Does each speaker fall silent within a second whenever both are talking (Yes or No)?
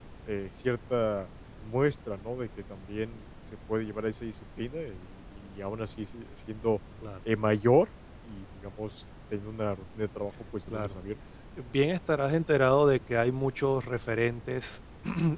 Yes